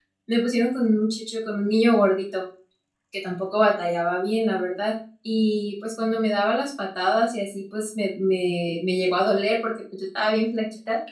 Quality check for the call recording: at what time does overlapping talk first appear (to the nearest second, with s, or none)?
none